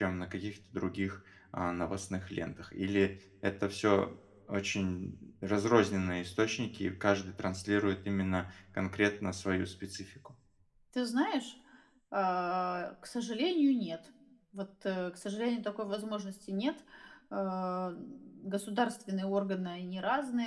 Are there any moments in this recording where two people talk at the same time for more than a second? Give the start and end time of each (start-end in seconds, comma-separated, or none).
none